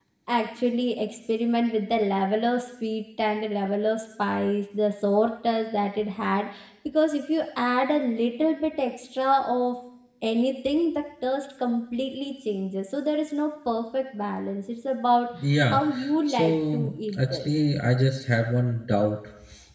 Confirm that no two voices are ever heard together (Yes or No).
No